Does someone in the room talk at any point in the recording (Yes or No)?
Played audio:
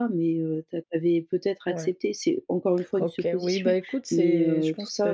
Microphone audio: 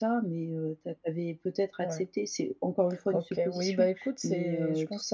No